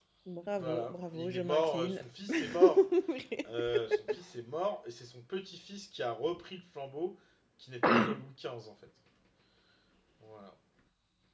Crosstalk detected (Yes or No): Yes